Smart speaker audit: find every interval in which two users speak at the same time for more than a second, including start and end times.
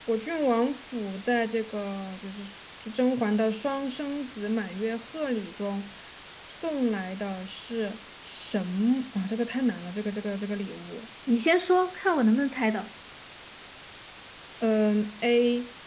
none

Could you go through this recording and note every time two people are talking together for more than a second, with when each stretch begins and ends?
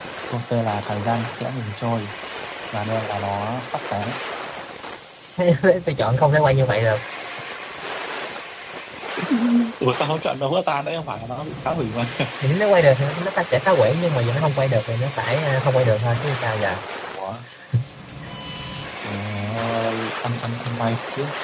none

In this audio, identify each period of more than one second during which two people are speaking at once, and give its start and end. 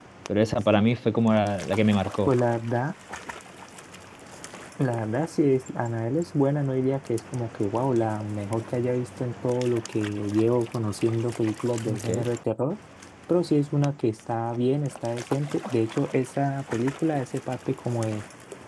none

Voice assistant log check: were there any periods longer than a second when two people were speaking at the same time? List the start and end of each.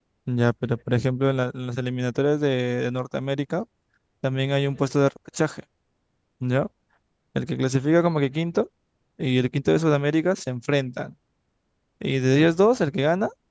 none

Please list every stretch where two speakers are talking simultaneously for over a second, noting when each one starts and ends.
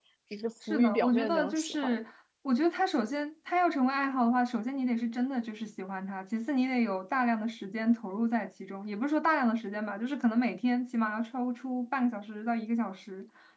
0.7-2.0

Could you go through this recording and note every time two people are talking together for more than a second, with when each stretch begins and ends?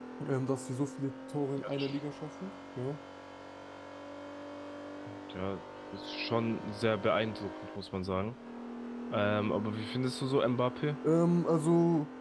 none

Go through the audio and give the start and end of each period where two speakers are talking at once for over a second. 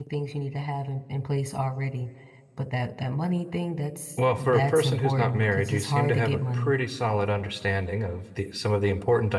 4.2-6.7

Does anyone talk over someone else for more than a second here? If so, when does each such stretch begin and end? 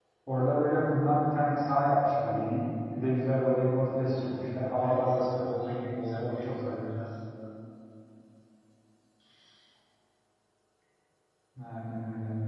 4.0-6.9

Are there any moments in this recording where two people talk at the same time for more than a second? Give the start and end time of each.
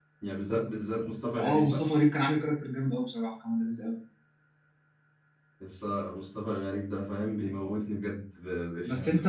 none

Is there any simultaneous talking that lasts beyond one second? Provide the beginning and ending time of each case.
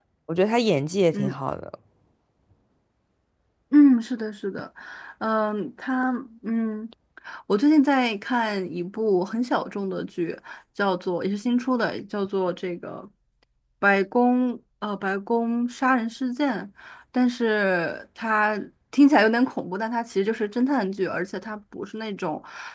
none

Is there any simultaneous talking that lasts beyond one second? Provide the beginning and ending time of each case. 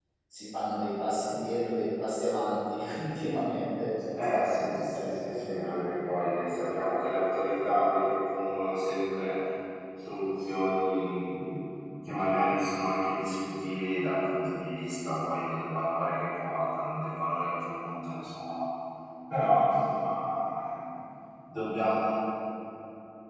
4.2-5.8

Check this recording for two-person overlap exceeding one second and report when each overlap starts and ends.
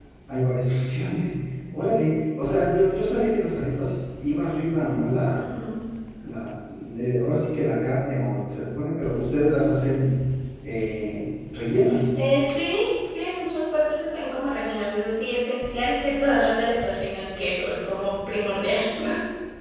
none

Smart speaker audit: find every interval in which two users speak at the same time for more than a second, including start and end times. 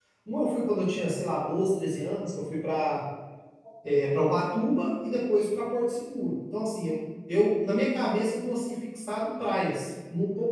none

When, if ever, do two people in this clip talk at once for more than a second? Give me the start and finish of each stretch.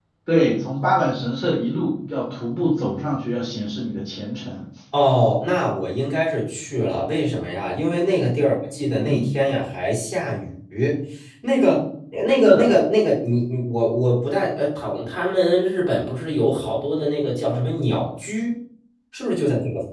none

